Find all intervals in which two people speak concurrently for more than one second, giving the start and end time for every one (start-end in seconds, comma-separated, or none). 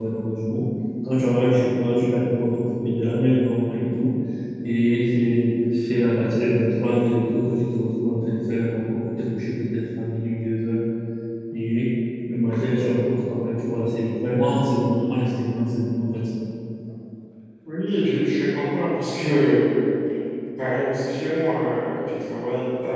none